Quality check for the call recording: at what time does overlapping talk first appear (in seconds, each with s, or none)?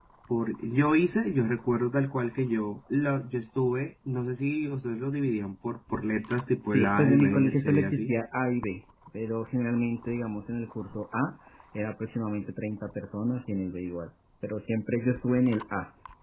6.6 s